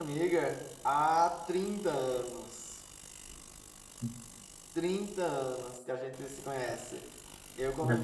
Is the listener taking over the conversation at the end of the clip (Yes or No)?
No